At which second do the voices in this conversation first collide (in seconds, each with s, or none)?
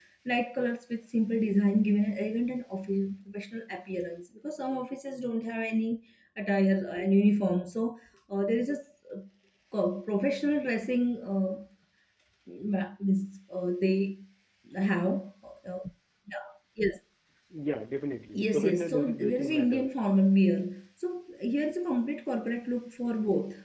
18.3 s